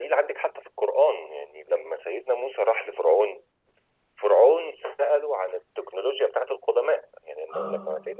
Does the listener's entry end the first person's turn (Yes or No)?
No